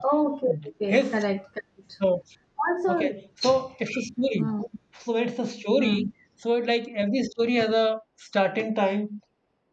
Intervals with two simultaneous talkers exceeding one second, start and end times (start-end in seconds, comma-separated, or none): none